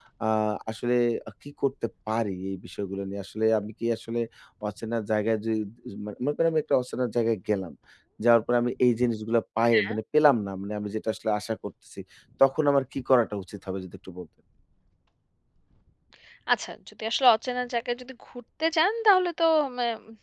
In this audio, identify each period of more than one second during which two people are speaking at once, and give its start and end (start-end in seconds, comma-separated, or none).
none